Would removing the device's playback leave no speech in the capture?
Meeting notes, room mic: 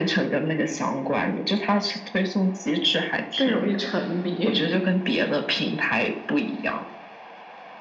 No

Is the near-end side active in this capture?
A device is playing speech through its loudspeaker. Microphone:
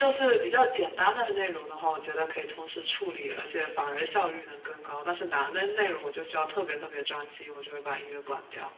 No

